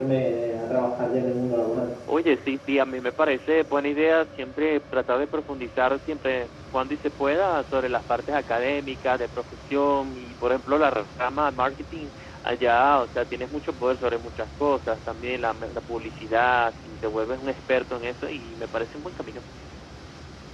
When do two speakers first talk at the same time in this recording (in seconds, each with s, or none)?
none